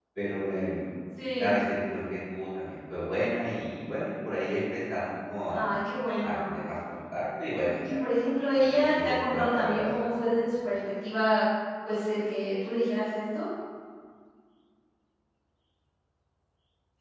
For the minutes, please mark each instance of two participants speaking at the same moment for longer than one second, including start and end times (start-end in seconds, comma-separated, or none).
8.5-9.8